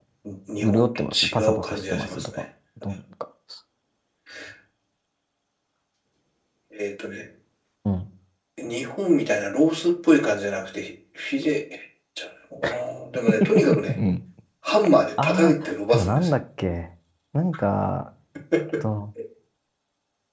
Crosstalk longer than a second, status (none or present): present